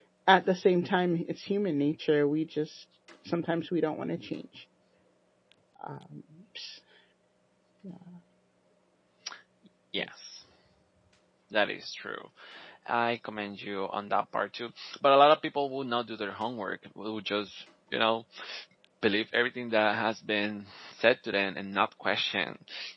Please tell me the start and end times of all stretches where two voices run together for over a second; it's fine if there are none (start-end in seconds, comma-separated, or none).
none